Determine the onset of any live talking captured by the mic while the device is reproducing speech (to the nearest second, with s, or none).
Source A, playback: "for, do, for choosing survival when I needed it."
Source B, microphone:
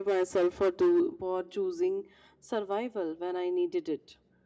none